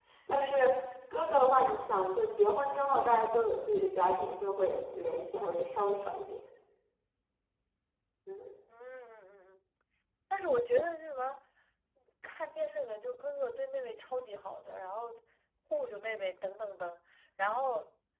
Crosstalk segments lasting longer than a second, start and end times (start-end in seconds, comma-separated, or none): none